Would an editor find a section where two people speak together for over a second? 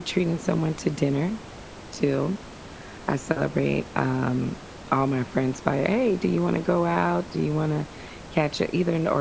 No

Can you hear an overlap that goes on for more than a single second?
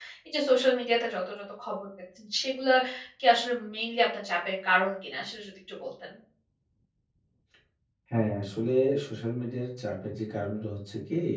No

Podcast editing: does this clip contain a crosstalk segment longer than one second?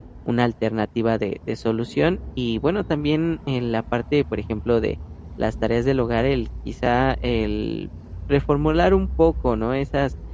No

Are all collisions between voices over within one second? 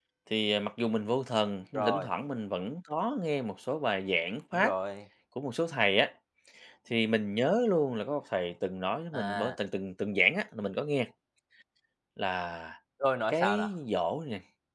Yes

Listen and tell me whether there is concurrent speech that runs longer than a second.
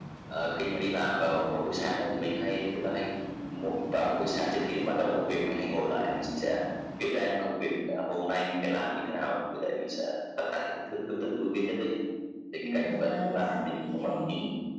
Yes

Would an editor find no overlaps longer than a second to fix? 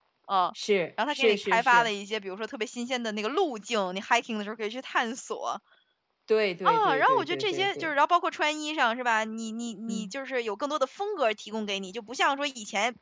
No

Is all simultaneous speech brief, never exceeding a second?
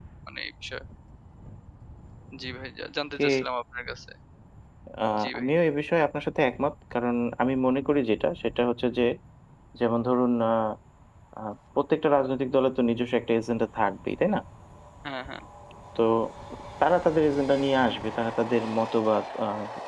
Yes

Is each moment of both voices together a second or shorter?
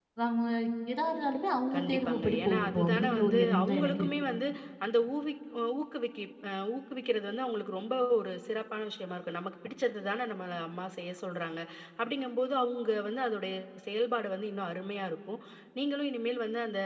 No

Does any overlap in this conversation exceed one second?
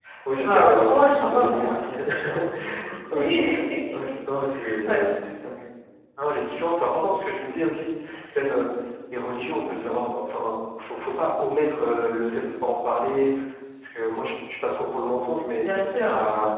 Yes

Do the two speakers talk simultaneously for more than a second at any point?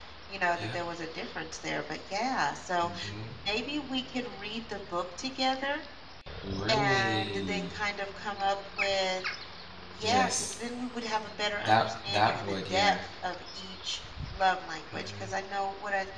Yes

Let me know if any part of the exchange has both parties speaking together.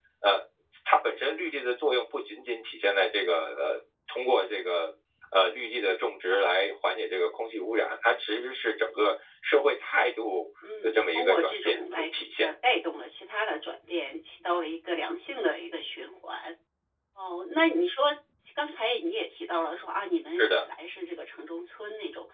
Yes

